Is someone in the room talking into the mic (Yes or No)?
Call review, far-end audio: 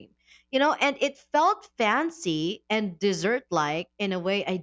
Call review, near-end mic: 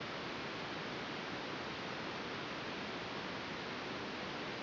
No